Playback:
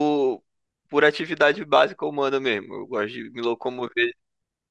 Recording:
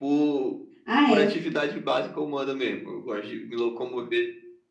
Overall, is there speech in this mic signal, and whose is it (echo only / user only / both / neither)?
both